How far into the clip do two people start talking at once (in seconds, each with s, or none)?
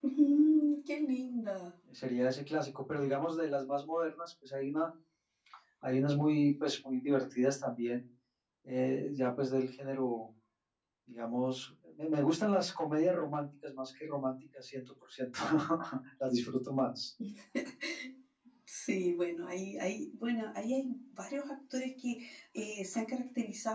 none